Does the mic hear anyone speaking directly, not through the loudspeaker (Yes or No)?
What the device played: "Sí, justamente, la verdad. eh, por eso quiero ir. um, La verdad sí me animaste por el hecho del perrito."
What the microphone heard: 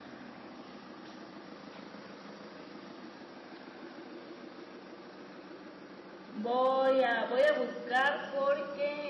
Yes